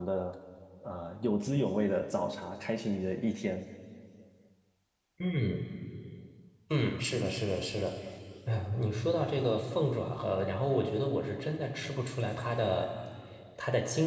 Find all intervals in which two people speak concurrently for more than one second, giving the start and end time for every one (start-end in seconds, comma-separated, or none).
none